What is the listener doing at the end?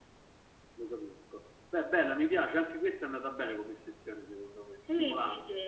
taking over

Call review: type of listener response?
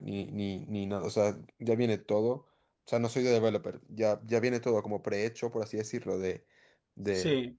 taking over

